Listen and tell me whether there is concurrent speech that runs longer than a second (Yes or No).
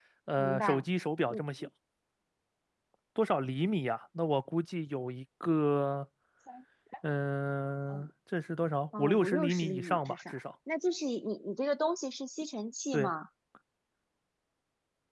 Yes